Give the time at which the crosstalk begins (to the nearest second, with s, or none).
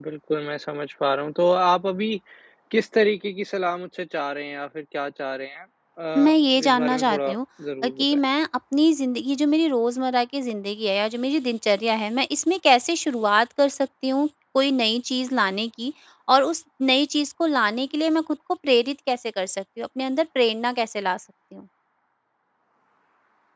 6 s